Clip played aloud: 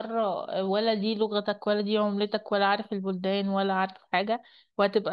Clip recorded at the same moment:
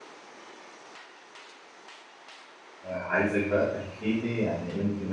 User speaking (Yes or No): Yes